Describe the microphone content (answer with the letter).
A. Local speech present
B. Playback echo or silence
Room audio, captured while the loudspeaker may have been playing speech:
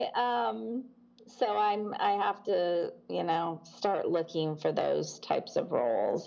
B